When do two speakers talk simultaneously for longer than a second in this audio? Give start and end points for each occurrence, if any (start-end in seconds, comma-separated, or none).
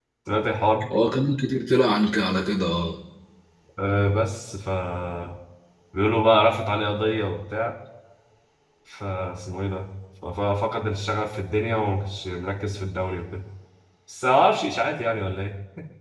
none